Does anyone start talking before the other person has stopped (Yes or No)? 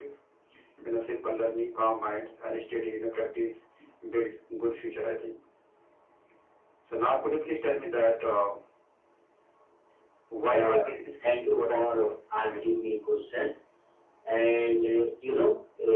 Yes